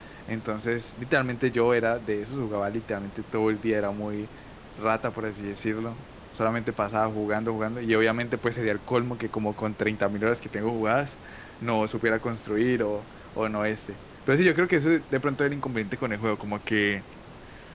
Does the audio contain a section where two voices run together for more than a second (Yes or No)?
No